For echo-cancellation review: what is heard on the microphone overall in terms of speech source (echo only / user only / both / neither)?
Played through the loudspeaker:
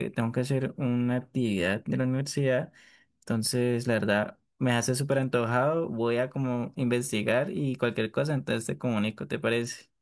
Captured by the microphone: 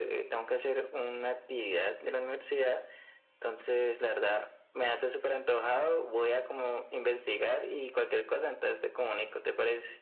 echo only